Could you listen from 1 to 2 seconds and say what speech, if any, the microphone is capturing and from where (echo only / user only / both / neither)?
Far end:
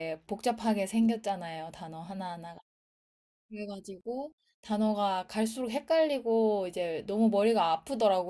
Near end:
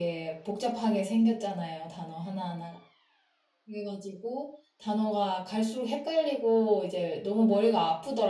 echo only